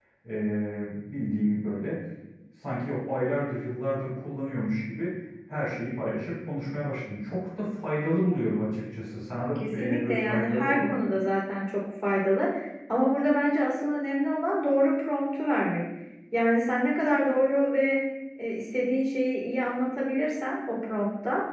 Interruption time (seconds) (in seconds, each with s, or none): 9.6 s